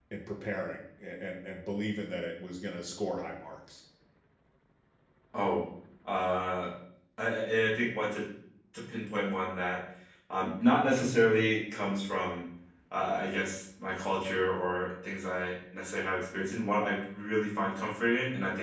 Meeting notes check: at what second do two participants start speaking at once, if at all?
none

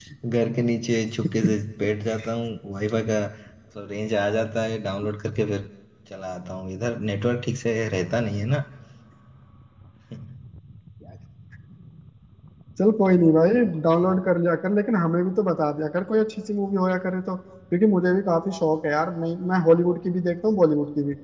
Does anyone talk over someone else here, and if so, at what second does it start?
none

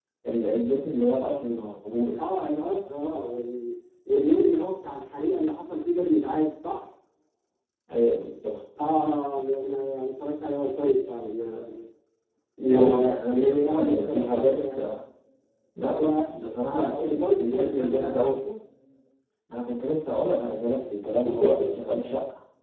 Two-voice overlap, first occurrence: 12.6 s

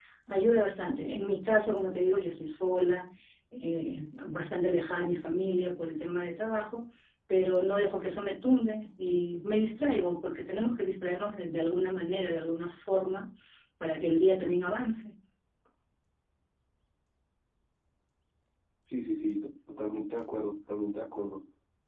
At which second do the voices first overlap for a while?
none

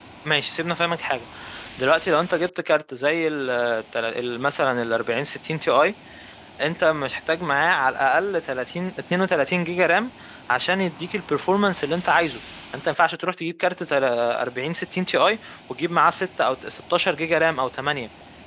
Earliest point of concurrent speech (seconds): none

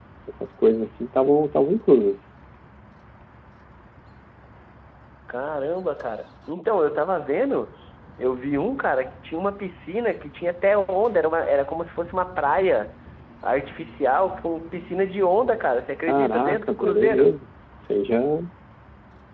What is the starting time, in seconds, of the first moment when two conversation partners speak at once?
16.1 s

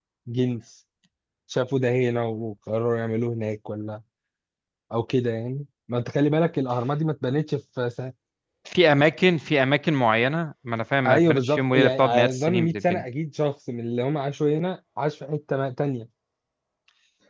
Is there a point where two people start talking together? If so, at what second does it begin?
11.0 s

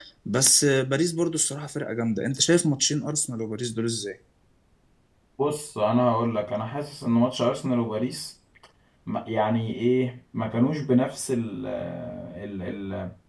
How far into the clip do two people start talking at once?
none

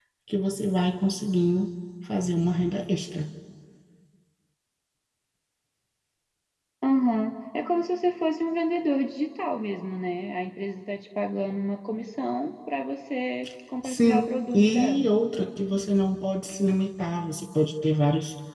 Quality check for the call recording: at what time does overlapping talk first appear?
13.8 s

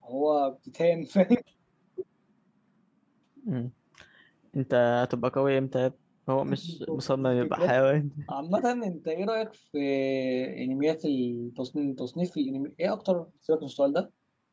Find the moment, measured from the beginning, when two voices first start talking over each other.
6.5 s

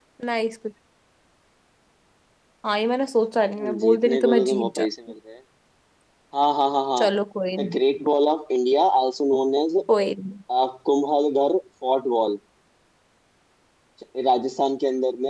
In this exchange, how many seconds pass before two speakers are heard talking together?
3.6 s

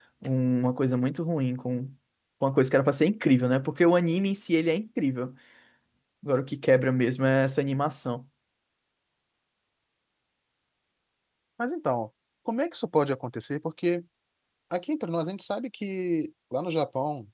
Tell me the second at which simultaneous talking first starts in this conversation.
none

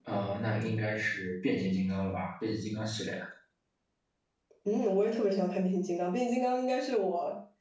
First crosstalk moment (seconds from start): none

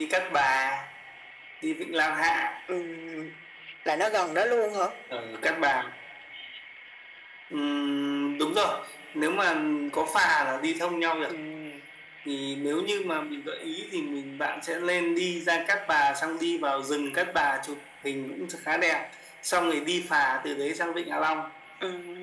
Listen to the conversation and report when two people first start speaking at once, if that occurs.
none

